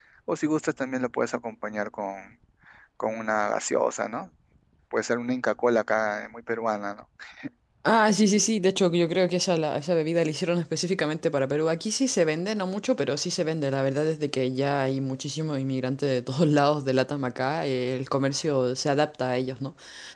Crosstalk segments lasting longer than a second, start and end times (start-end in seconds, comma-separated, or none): none